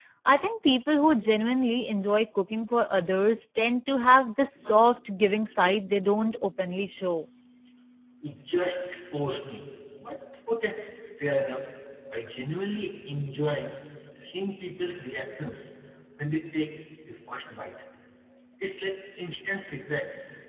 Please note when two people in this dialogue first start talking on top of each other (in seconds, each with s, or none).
none